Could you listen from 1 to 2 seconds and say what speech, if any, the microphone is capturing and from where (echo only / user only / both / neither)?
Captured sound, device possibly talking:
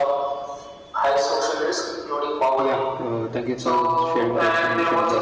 echo only